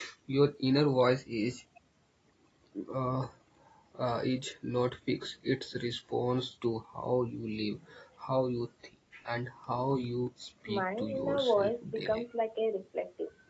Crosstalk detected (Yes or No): Yes